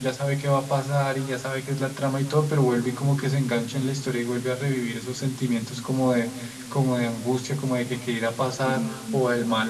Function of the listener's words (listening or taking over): listening